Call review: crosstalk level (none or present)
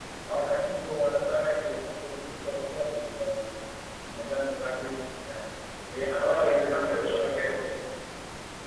present